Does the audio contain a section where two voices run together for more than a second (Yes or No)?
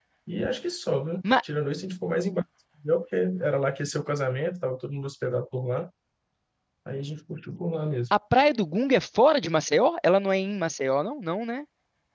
No